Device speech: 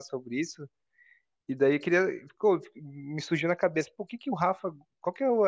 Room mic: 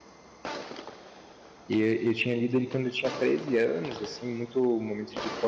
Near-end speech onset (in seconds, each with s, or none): 1.7 s